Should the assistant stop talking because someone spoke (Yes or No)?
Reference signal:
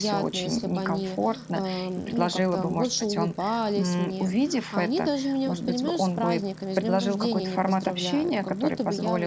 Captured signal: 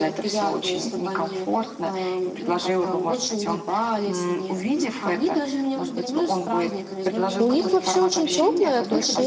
Yes